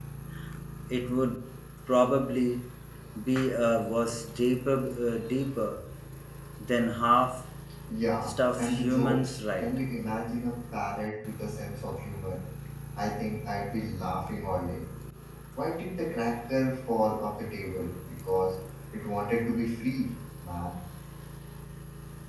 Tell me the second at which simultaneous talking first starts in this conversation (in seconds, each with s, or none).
8.2 s